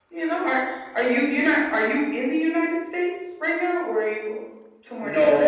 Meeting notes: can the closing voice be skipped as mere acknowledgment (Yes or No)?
No